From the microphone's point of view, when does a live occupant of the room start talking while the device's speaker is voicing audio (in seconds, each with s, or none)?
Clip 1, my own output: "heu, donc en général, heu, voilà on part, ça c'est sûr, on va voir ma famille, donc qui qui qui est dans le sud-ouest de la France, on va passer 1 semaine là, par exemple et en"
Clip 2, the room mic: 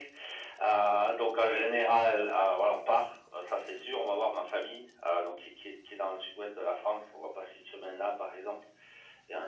none